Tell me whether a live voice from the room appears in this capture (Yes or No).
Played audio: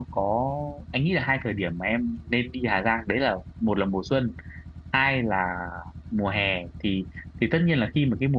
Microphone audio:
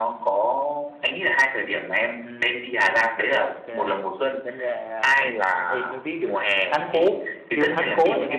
Yes